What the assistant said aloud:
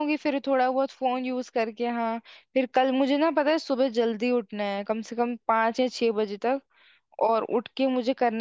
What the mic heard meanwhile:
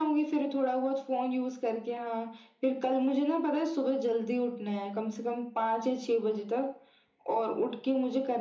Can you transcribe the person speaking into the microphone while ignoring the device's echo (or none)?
none